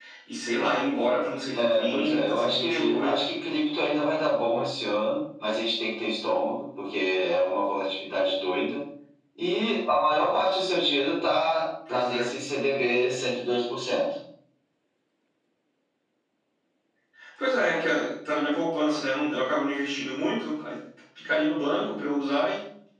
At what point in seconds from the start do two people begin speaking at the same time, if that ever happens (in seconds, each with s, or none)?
1.5 s